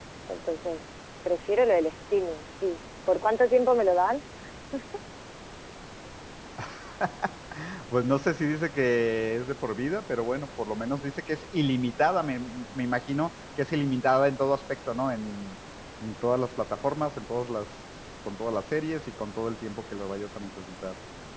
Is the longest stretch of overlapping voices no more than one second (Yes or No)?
Yes